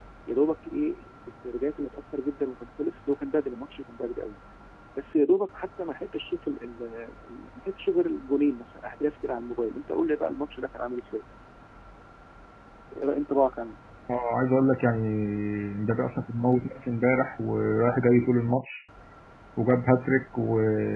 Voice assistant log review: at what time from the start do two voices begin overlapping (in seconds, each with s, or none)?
none